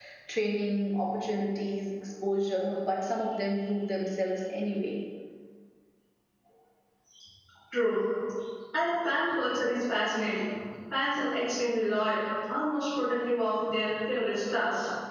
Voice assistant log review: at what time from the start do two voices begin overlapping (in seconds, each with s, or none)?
none